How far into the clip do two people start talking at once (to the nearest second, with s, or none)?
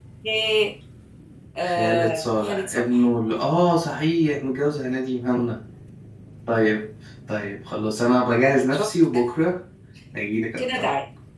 2 s